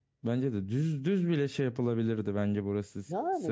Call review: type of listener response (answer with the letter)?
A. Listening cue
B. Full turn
A